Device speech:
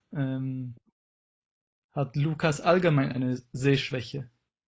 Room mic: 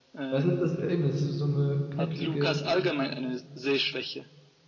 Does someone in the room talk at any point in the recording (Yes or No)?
Yes